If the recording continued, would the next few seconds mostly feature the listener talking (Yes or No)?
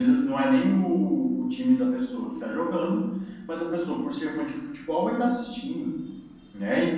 No